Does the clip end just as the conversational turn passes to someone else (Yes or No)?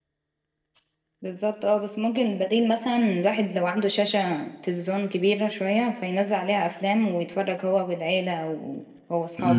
Yes